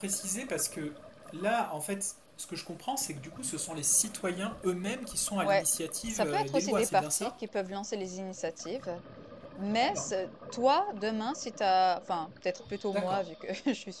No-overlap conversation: No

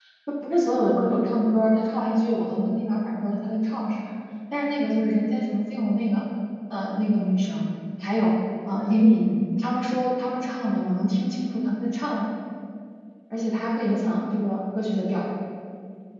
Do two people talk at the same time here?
No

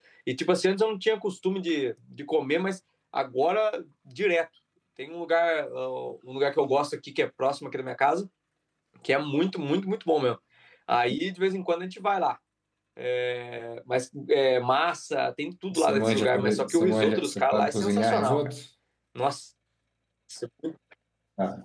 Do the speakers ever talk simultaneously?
Yes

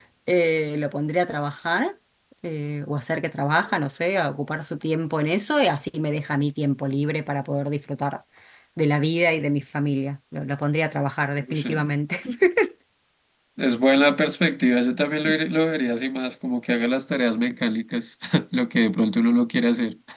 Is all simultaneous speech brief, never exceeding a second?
Yes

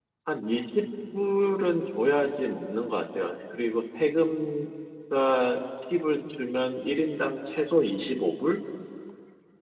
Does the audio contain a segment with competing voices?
No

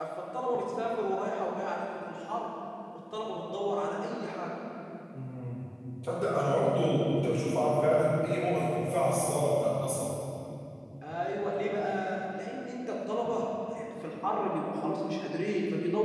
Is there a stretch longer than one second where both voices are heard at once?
No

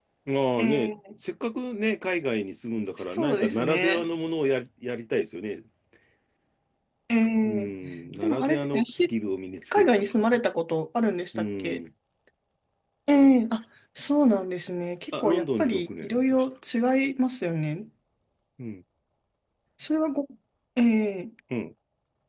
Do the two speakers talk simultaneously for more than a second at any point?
Yes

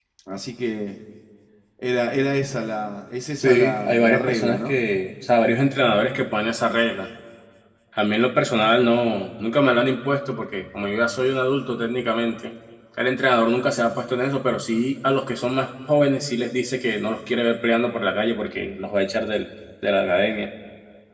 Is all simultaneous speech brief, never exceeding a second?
No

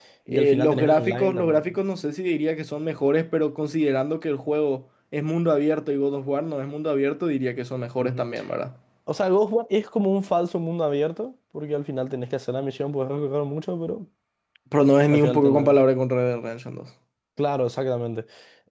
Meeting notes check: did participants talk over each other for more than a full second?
Yes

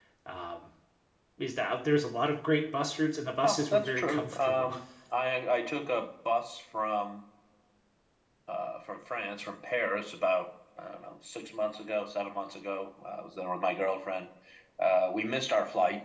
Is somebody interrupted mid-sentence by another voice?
Yes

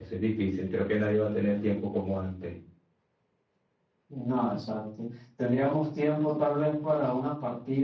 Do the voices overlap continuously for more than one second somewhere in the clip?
No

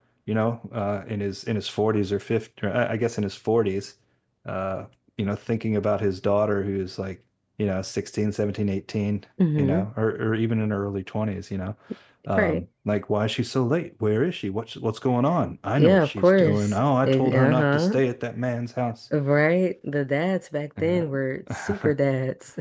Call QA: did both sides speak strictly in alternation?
No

